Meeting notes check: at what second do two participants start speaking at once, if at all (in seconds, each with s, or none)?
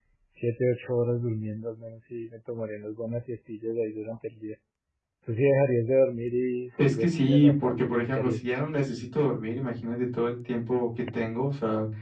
6.8 s